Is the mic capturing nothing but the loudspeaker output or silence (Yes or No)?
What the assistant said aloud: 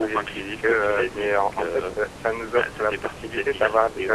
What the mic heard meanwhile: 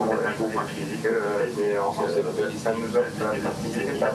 No